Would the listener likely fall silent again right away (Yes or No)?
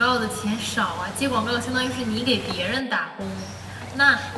Yes